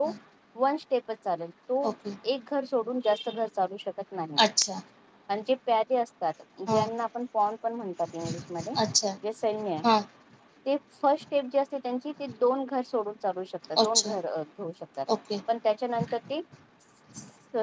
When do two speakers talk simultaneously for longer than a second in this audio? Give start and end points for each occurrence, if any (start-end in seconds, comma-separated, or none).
none